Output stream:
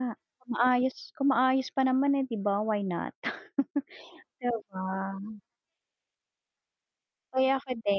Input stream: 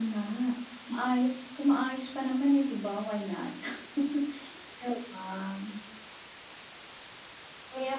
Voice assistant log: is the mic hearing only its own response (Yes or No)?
Yes